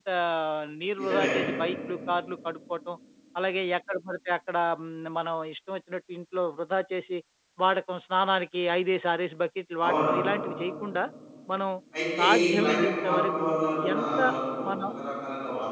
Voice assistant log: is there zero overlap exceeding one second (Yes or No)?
No